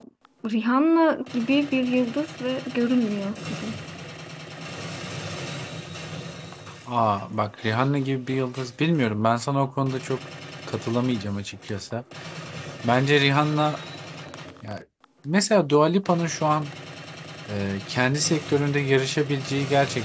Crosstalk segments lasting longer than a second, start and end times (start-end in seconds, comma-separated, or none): none